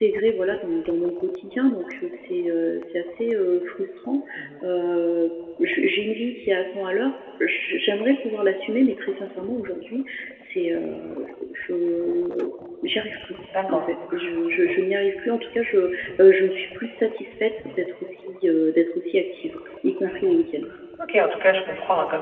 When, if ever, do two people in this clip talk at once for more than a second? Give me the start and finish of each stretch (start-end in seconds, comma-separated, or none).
none